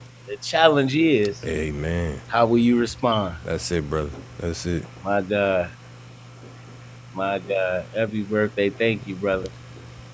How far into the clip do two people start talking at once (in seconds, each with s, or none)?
none